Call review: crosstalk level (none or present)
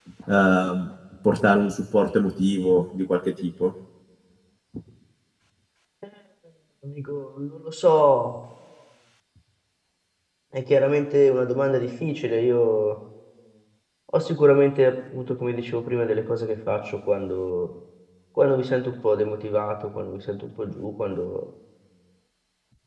none